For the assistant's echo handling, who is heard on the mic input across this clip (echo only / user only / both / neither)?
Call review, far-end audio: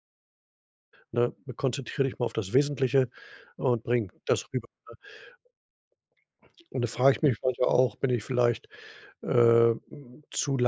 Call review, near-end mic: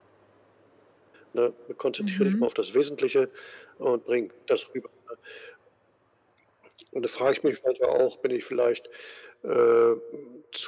both